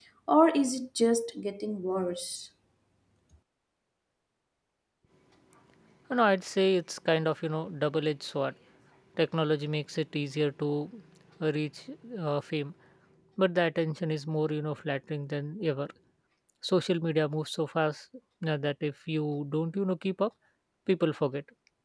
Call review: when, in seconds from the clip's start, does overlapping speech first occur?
none

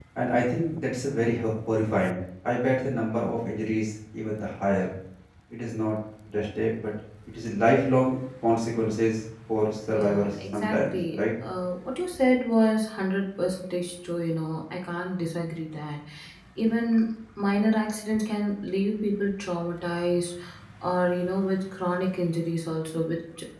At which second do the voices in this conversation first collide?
10 s

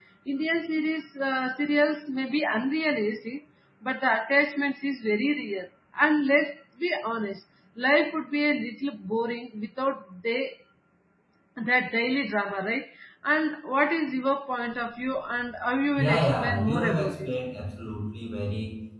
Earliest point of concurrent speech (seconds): 16 s

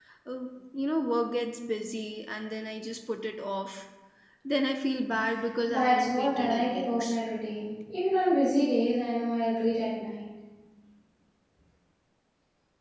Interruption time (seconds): 6 s

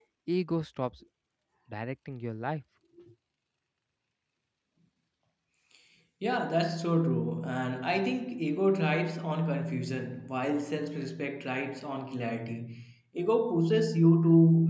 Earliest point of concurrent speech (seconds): none

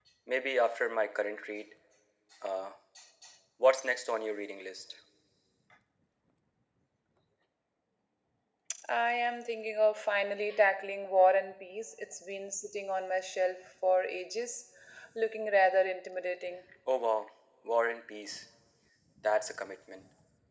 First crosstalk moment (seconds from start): none

